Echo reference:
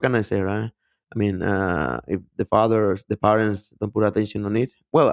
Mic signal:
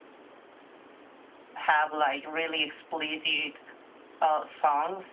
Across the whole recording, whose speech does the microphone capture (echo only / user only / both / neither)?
user only